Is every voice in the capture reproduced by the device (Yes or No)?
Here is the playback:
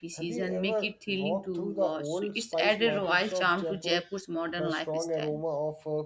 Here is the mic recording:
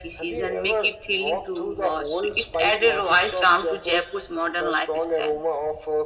Yes